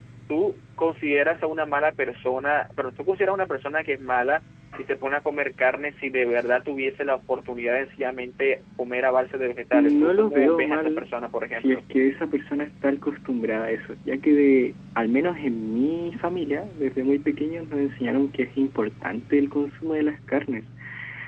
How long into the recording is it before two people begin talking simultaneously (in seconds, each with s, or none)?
9.7 s